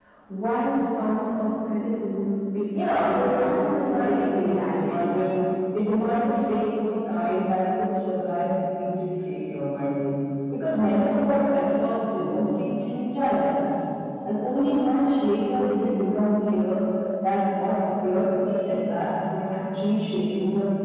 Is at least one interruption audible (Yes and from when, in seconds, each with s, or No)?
Yes, from 2.7 s